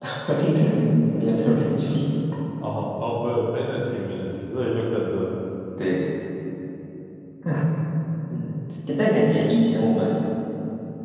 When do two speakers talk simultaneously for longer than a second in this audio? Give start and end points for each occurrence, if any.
none

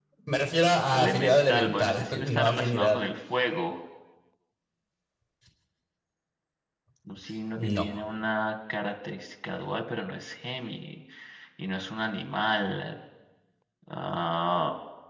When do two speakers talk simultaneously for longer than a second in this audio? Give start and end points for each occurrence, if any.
0.9-3.0

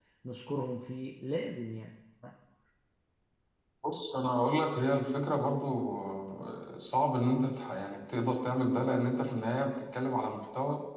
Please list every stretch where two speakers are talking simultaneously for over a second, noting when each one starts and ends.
none

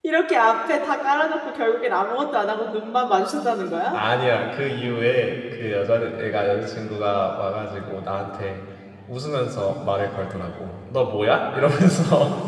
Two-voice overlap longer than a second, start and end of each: none

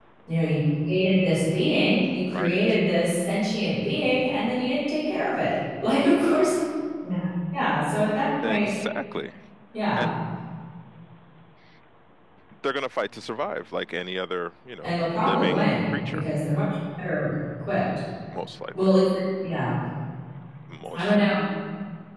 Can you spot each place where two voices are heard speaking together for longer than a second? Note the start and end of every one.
14.8-16.3

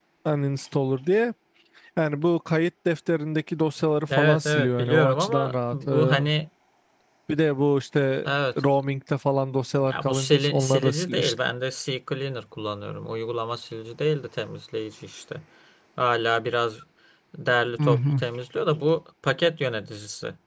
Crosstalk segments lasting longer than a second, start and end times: 4.2-6.2, 9.8-11.3

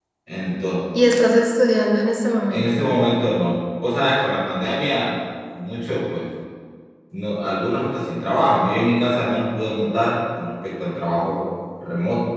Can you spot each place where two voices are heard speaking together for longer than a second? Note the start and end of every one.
none

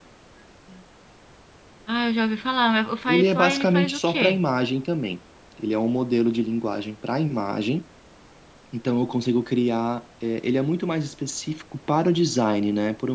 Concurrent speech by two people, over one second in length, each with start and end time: 3.1-4.4

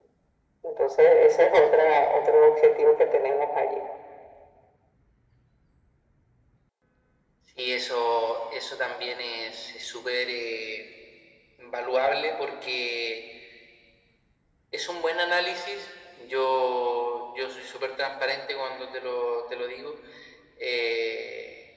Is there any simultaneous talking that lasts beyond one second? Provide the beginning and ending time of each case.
none

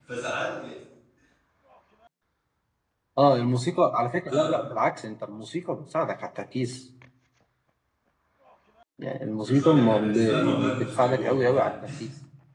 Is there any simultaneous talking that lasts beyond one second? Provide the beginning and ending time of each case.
9.4-11.7

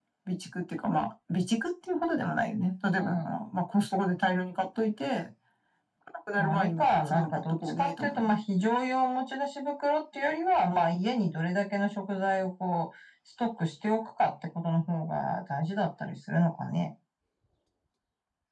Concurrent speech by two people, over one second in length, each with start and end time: 6.4-8.3

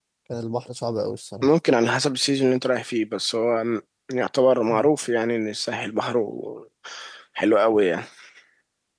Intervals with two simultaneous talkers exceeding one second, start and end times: none

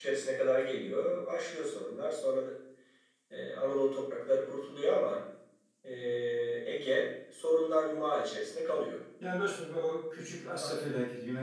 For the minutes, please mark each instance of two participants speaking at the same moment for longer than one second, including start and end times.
none

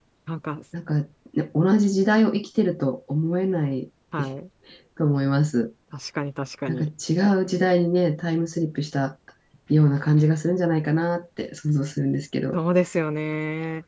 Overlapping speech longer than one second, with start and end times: none

